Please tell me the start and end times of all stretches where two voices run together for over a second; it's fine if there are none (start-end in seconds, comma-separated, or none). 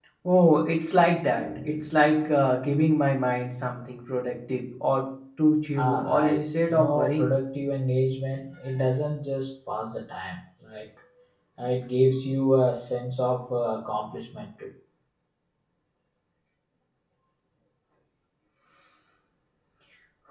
5.8-7.4